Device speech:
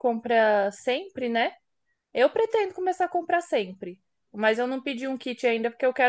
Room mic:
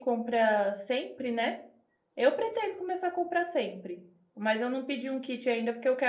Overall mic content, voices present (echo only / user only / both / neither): echo only